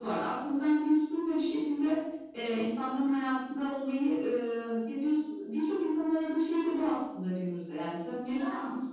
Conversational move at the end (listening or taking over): listening